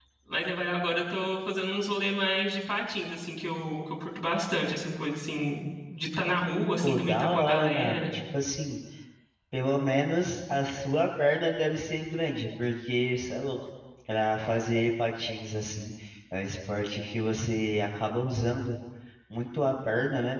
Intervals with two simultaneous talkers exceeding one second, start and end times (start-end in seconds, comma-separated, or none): 6.8-8.0